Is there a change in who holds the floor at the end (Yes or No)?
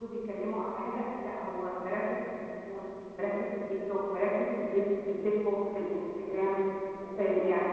Yes